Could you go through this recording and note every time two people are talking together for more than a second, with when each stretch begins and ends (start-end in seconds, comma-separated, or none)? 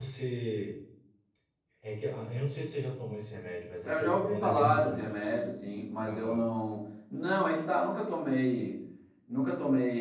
3.8-5.3